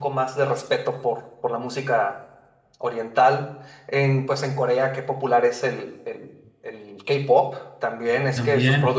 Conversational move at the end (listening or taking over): taking over